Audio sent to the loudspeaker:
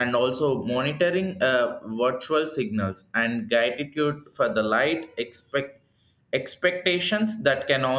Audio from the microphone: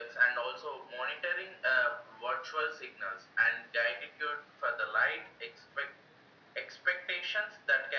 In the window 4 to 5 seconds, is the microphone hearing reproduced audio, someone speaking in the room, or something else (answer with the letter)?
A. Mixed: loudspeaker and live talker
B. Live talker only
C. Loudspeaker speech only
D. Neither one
C